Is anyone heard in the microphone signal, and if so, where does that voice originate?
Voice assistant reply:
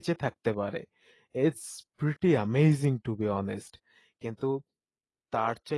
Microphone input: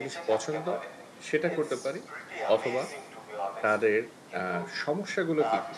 both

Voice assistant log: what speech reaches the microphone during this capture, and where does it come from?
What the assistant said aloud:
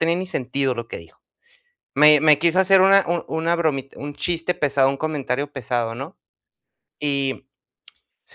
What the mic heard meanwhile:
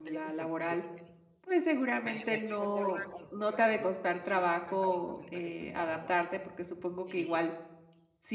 both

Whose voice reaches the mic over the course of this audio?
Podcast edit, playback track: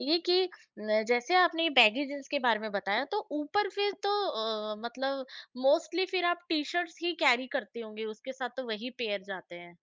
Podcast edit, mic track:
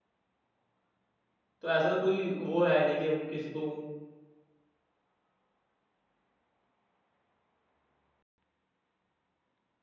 user only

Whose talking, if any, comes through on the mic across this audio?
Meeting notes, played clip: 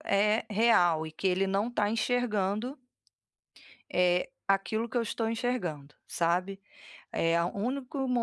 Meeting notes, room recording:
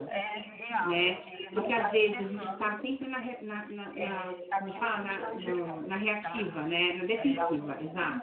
both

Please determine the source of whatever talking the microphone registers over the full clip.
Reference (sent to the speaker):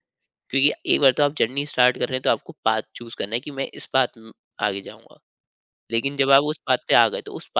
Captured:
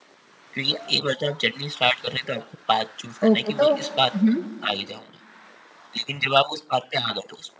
both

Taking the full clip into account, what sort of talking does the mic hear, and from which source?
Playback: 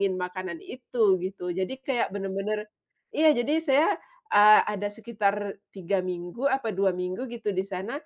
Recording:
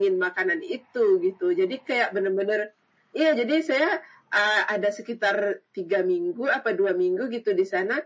echo only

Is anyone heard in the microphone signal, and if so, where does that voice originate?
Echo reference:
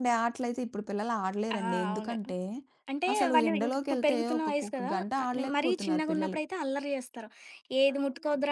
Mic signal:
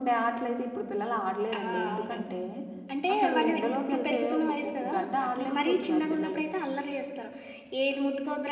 echo only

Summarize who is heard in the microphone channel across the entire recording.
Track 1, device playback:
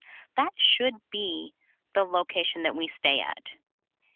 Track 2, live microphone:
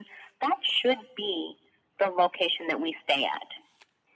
echo only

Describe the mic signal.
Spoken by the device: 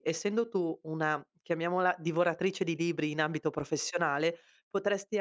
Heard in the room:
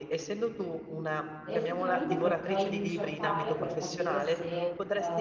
both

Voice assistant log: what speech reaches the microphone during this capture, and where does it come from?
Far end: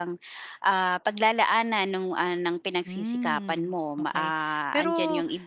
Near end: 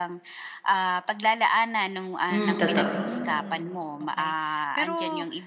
both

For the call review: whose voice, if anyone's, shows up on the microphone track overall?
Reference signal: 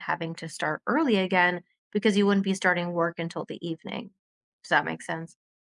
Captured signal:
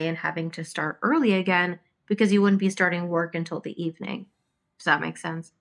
echo only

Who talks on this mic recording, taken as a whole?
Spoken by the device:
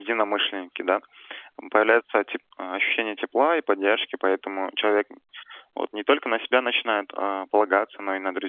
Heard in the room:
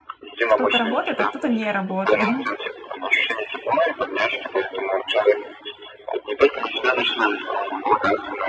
both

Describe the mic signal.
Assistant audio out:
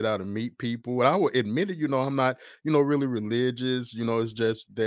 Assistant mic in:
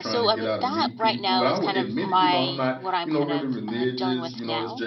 both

